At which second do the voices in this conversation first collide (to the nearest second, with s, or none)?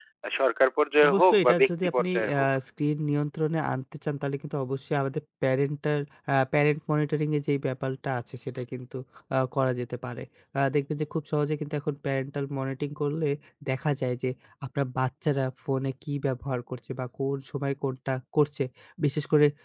1 s